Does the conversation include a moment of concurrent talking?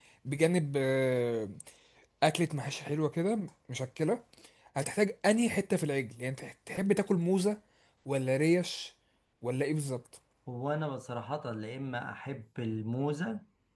No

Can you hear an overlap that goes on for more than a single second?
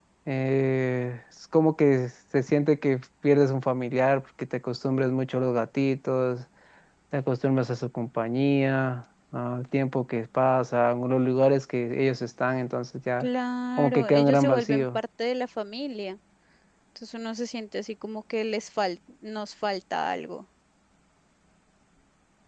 Yes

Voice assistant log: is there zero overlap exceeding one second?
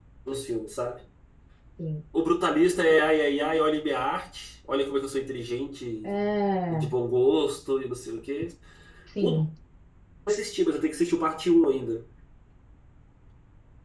Yes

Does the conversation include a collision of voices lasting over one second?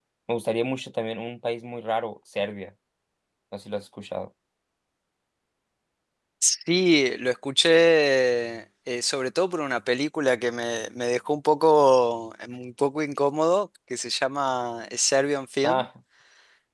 No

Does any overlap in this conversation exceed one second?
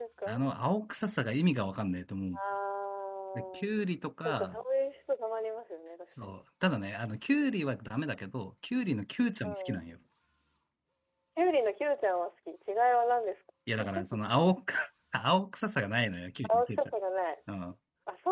No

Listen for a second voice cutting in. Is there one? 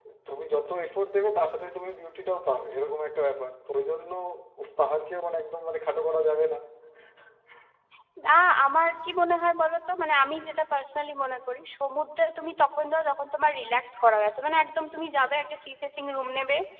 No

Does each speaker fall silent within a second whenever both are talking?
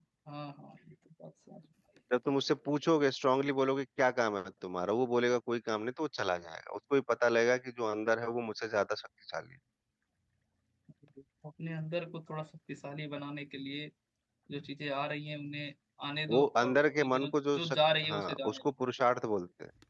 No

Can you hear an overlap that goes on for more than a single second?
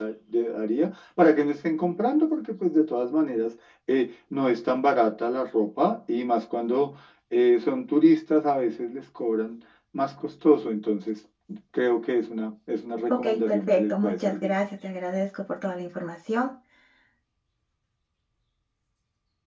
Yes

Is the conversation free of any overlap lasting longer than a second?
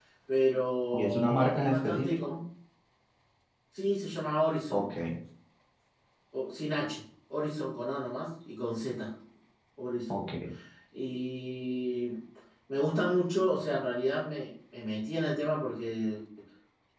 No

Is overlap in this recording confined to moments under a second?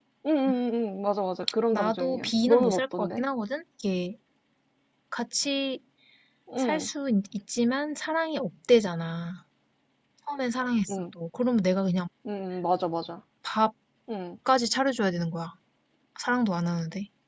No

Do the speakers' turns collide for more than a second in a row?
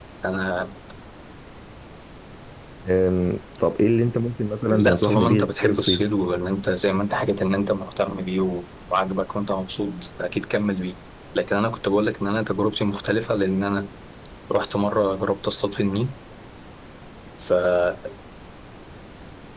Yes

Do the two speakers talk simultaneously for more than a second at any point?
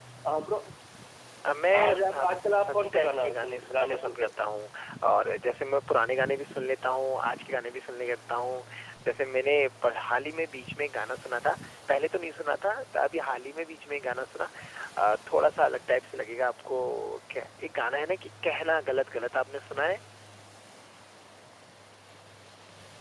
Yes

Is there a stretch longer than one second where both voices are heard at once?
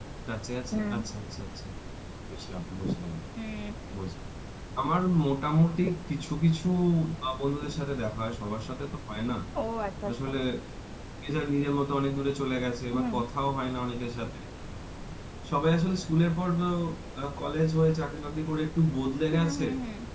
No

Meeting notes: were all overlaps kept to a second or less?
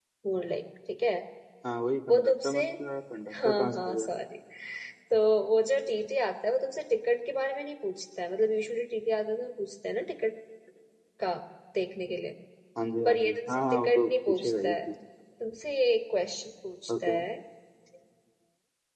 No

